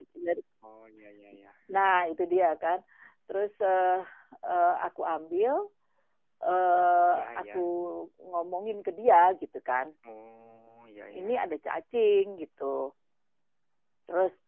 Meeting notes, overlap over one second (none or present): none